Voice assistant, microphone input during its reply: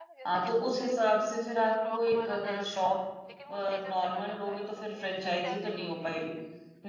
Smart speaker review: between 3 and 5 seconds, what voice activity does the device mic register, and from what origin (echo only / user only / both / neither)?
both